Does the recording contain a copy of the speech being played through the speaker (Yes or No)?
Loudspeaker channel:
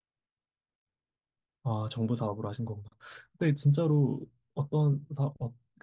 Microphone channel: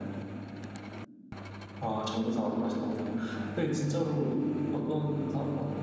Yes